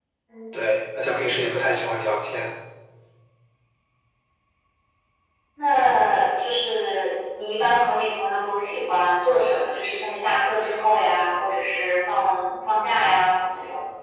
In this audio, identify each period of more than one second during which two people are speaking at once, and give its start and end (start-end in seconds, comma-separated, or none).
none